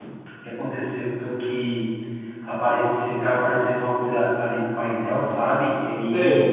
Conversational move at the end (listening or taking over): listening